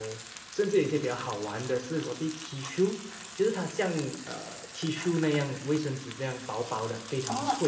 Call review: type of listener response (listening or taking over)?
taking over